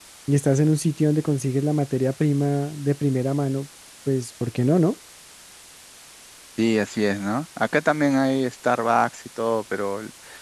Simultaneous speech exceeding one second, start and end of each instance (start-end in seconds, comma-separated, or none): none